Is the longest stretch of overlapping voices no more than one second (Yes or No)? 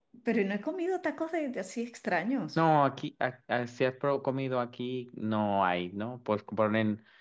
Yes